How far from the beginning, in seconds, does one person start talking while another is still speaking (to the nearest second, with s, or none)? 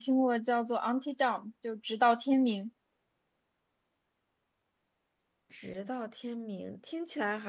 none